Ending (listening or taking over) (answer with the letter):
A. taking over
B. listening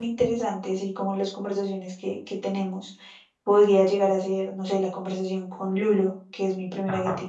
B